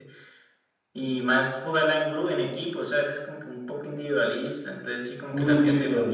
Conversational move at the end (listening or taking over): taking over